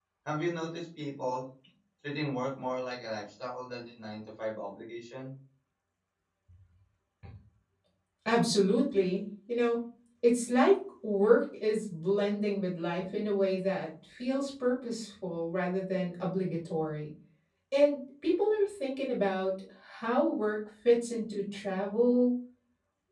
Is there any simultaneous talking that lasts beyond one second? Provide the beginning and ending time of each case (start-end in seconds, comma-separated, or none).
none